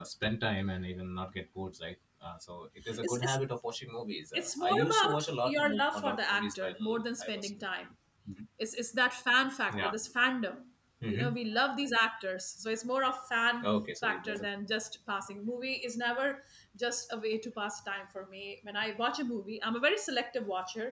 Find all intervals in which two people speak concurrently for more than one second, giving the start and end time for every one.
4.3-7.5

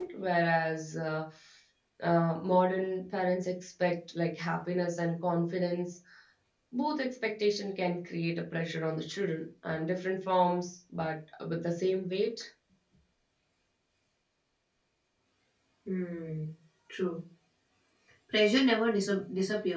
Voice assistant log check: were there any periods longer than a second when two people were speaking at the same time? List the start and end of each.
none

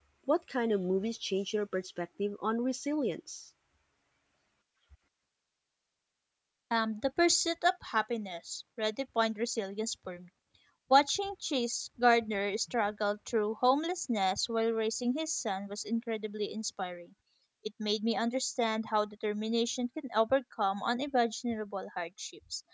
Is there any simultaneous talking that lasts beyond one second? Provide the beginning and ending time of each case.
none

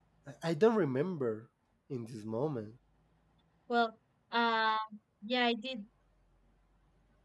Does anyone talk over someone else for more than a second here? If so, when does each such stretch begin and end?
none

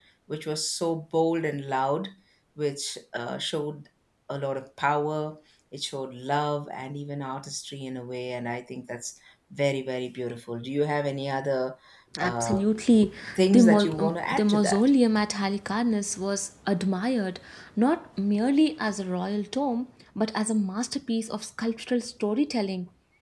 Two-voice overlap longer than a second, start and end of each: 13.5-14.8

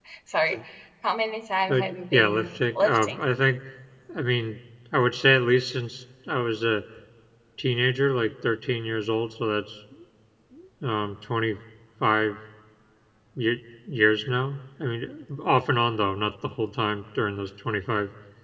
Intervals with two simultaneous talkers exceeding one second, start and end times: 1.7-3.2

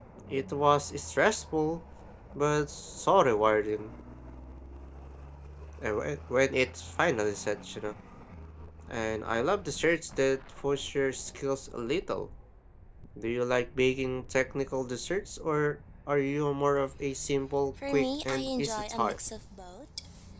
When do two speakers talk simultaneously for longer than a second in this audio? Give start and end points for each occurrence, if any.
17.9-19.2

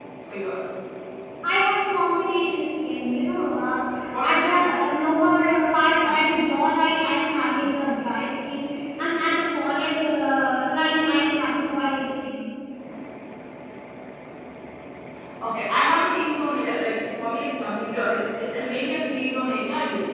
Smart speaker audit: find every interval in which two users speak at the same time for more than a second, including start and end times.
none

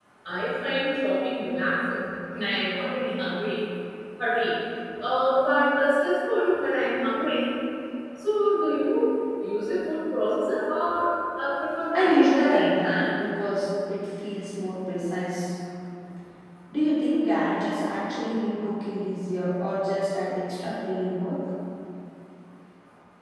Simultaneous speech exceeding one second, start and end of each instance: 11.9-13.2

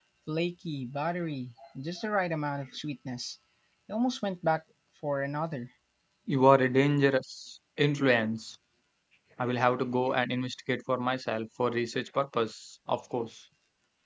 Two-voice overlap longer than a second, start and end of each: none

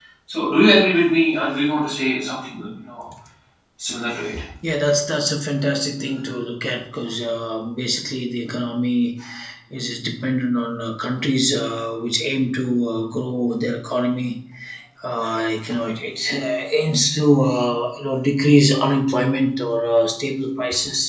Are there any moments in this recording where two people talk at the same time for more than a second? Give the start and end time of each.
none

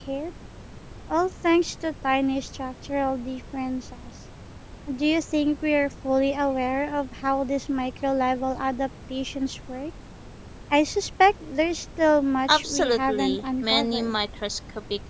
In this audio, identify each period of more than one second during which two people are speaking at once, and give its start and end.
12.5-14.2

